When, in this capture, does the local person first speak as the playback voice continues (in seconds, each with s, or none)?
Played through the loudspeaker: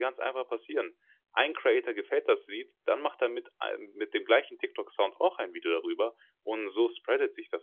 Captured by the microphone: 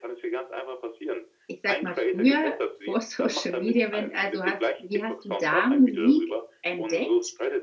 1.5 s